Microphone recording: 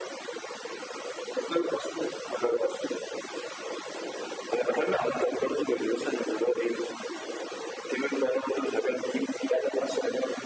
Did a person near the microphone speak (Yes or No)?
No